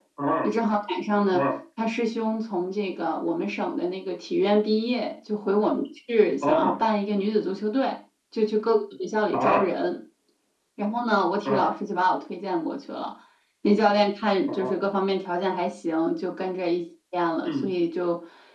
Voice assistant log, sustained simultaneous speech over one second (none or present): none